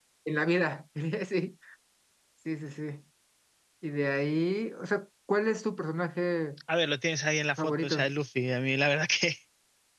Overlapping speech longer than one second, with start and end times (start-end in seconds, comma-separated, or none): none